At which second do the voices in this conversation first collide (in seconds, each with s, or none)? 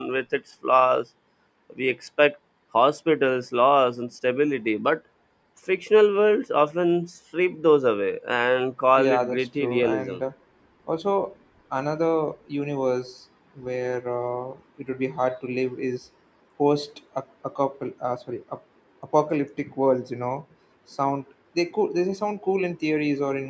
9.0 s